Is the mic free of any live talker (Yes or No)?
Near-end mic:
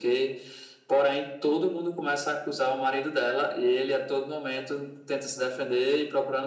Yes